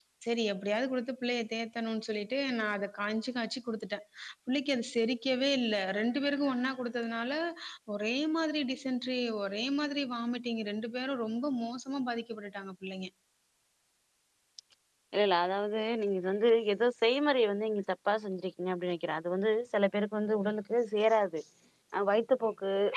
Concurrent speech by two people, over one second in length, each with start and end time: none

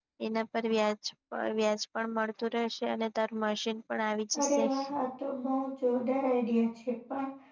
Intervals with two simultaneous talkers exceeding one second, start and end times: none

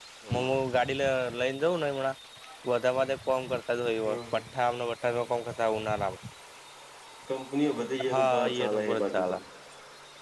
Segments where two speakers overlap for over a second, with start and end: 8.1-9.3

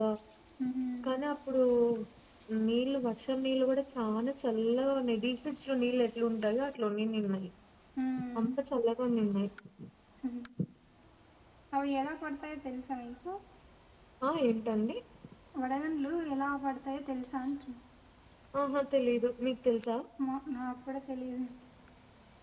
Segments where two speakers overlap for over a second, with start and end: none

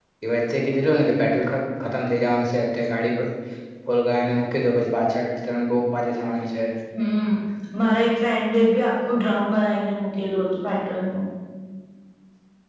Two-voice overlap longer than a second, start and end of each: none

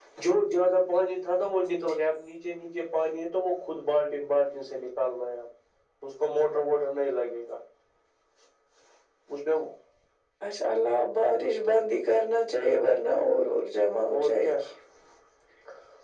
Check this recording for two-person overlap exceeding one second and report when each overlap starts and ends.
none

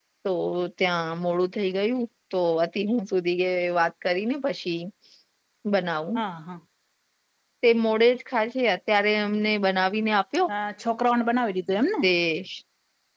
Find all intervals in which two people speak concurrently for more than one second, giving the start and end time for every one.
none

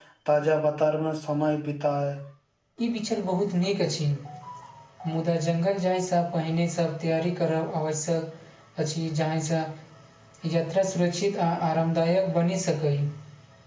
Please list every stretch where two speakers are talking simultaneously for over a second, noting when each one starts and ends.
none

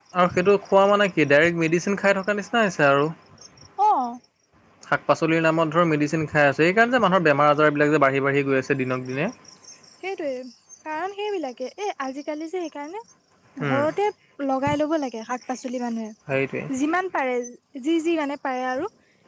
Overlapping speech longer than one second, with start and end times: none

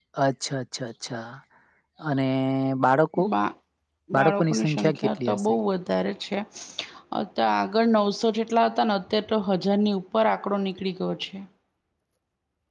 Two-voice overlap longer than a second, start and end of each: 4.2-5.4

